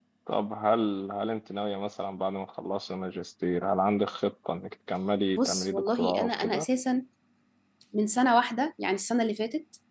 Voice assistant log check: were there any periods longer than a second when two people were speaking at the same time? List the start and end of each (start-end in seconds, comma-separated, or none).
5.4-6.7